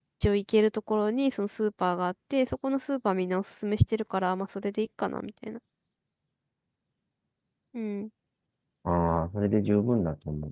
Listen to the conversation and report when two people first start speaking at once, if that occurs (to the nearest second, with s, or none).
none